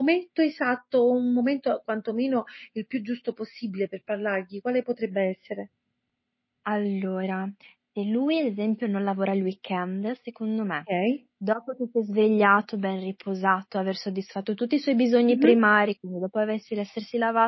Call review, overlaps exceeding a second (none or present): none